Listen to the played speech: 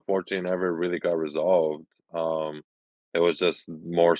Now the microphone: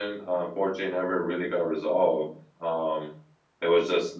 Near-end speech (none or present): none